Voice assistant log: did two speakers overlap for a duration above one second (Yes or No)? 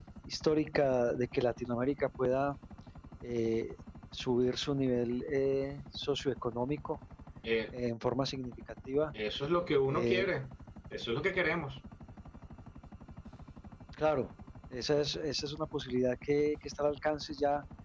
No